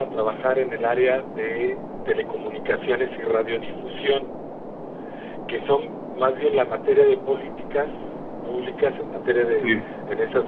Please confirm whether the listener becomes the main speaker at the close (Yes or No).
No